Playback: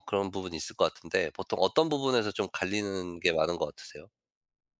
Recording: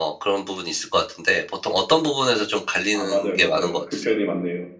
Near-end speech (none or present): present